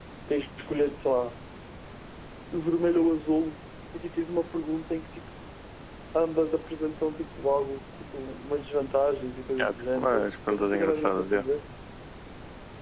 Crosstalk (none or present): present